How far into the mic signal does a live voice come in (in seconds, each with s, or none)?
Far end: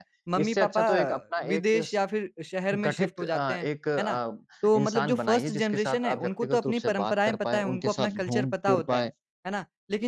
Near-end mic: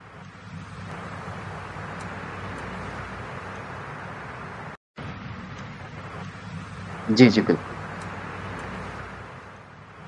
7.1 s